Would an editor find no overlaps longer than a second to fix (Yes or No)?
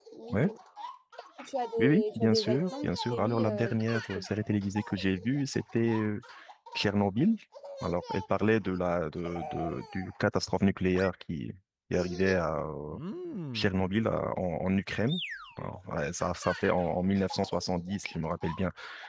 No